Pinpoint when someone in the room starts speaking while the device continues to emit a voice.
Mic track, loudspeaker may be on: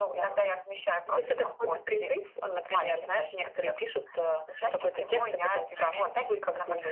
none

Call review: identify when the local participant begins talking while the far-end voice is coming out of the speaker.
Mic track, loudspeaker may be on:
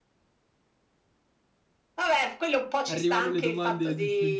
2.9 s

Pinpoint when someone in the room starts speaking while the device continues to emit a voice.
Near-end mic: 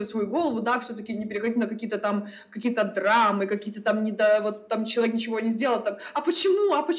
none

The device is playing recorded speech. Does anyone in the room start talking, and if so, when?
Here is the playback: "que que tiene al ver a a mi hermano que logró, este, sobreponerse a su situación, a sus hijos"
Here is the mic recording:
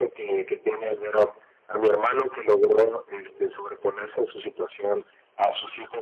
none

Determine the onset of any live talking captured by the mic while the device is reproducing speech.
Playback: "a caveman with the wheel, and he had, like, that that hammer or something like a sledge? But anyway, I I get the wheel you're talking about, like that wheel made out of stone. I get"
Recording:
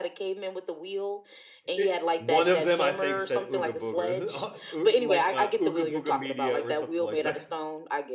1.8 s

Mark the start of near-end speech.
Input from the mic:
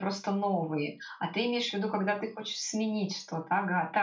none

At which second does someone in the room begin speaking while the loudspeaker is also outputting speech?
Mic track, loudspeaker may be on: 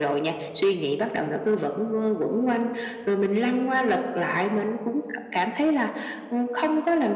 none

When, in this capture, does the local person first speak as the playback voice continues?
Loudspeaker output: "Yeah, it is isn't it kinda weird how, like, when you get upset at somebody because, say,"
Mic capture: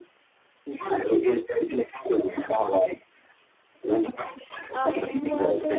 4.7 s

